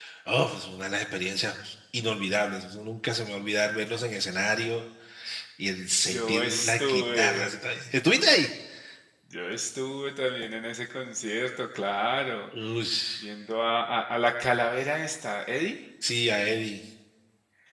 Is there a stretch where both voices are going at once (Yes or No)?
Yes